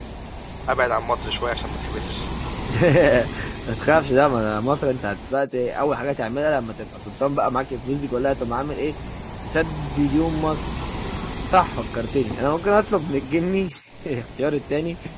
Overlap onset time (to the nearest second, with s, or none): none